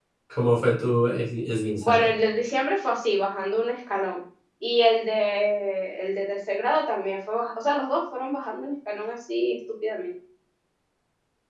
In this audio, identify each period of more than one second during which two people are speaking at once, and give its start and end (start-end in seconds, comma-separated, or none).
none